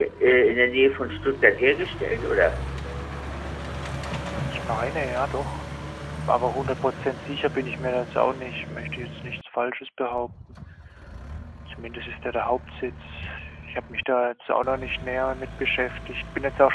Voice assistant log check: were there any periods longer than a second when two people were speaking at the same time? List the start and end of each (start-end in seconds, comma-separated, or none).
none